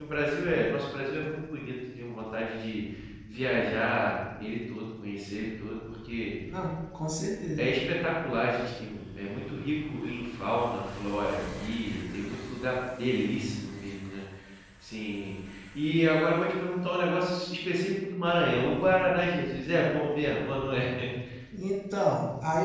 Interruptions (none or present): none